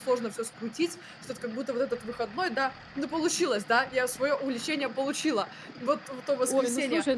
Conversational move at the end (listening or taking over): taking over